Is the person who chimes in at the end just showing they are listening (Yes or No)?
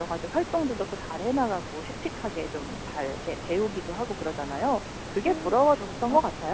No